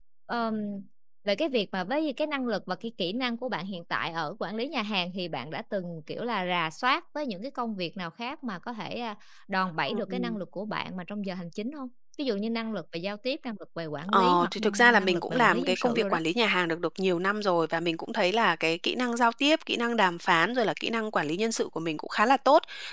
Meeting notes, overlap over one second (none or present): present